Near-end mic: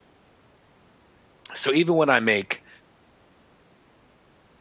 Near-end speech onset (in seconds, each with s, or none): 1.5 s